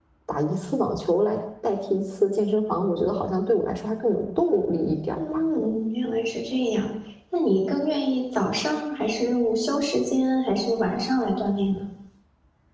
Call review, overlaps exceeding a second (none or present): none